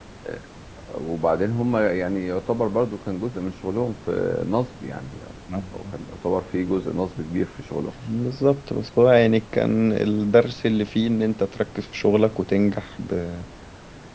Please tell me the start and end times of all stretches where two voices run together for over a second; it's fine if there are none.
none

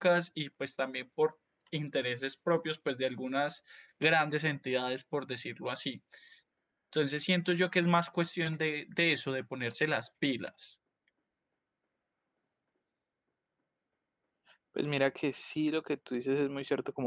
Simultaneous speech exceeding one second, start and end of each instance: none

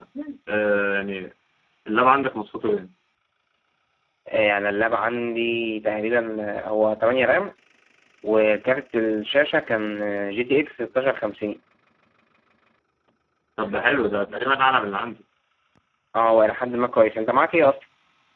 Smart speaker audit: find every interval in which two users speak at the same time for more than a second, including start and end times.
none

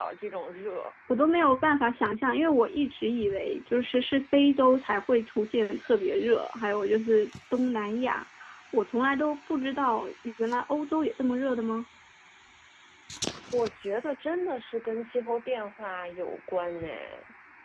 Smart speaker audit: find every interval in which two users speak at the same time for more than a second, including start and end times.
none

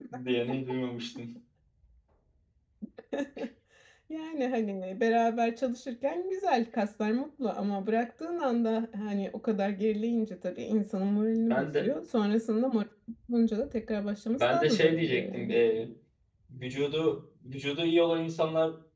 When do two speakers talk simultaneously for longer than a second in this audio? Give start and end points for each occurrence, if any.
14.4-15.6

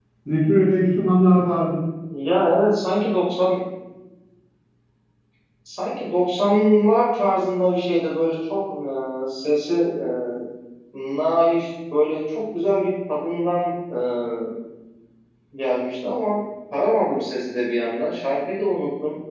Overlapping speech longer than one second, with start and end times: none

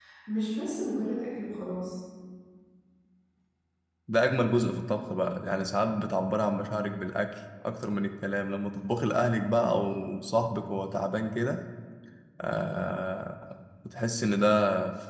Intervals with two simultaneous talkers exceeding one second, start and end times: none

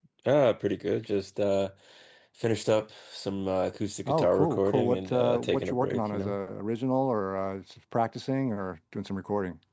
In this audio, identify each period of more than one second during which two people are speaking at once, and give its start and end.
4.1-6.4

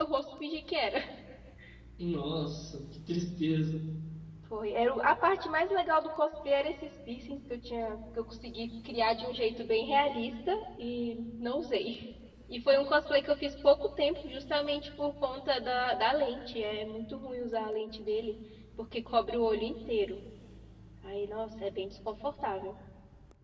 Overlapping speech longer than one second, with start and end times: none

